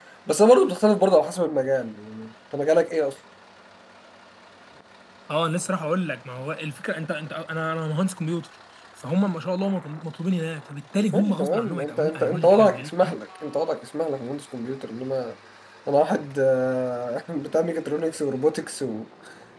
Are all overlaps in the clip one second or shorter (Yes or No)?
No